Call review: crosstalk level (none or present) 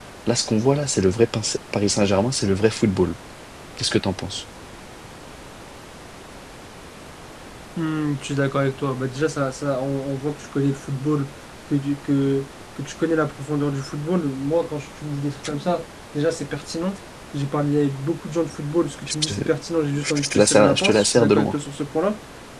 present